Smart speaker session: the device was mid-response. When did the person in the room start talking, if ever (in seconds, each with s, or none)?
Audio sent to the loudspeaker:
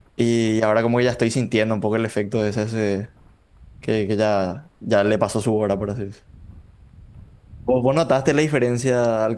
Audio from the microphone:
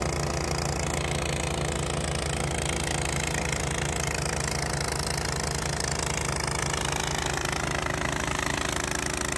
none